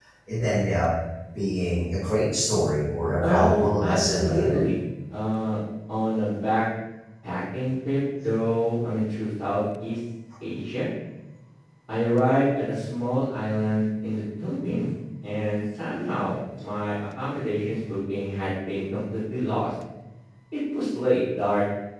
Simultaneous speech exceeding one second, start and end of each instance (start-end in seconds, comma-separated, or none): 3.2-4.6